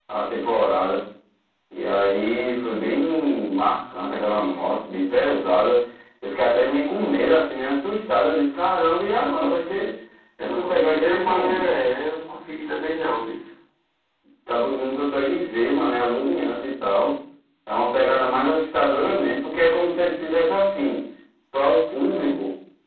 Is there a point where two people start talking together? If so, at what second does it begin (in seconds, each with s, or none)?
10.4 s